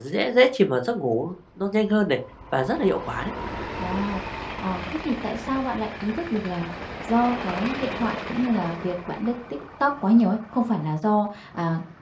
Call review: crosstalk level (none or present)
none